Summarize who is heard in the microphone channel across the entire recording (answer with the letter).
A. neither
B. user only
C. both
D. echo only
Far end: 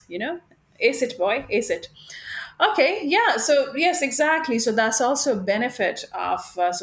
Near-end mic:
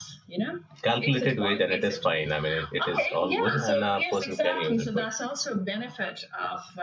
C